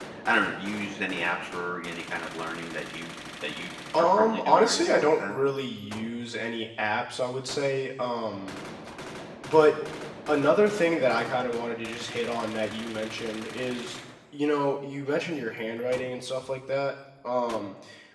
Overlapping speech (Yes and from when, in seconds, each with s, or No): Yes, from 3.9 s